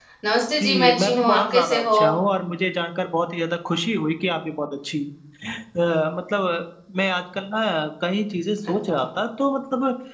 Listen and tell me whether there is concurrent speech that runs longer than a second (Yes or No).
Yes